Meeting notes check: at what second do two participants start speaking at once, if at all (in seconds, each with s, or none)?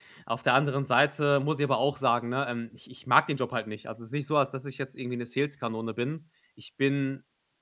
none